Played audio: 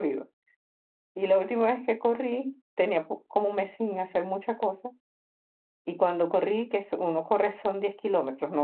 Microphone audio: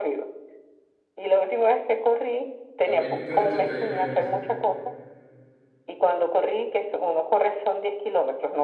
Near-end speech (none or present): present